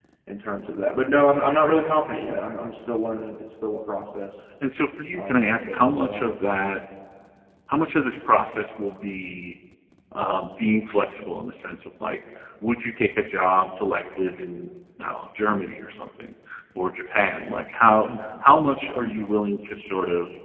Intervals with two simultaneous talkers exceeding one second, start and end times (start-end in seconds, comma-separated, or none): 5.1-6.6